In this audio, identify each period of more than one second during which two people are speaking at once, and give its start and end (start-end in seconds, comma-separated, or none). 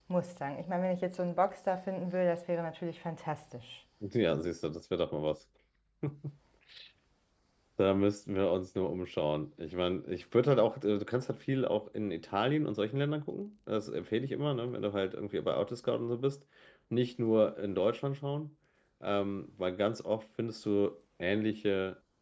none